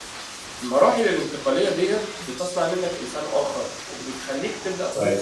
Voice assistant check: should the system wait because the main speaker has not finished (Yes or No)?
Yes